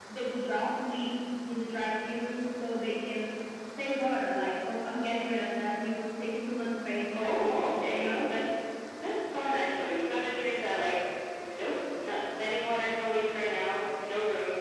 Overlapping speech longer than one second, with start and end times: 7.1-8.3

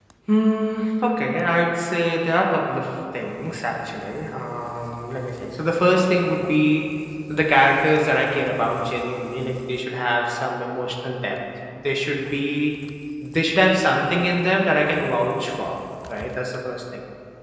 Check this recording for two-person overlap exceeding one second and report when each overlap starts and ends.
none

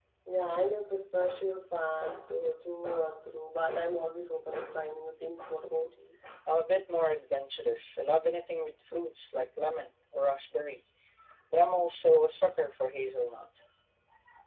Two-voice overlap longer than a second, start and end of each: none

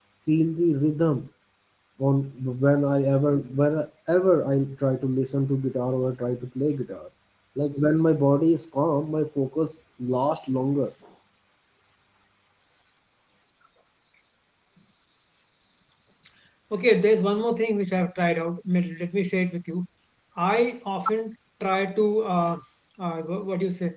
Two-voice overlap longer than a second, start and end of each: none

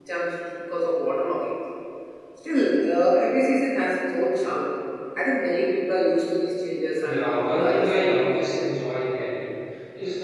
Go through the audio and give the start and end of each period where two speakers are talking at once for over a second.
7.0-8.4

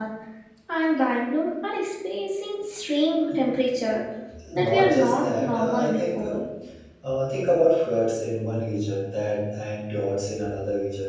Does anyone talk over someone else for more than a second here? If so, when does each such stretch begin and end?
4.5-6.2

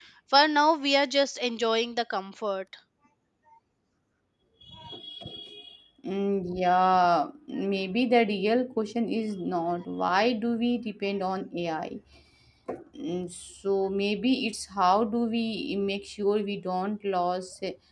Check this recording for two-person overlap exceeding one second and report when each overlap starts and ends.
none

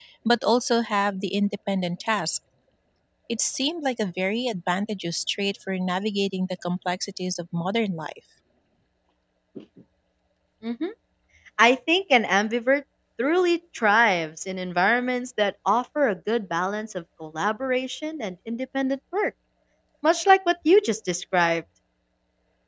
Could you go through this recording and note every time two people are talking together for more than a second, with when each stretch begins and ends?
none

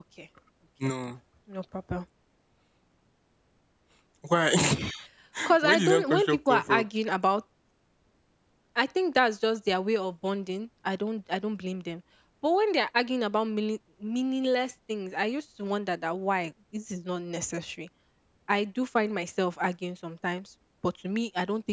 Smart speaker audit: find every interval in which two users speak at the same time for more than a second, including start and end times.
5.6-6.8

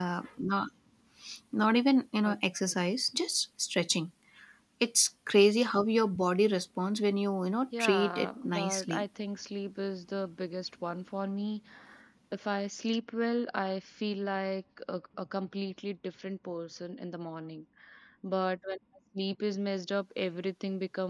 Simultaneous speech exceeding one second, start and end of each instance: 7.8-9.0

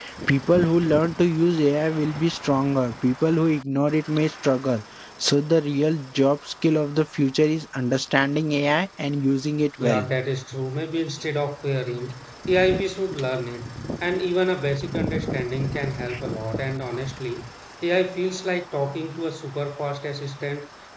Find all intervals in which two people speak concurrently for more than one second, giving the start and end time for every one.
none

